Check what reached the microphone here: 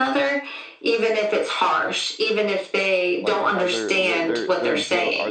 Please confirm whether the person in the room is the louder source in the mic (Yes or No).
No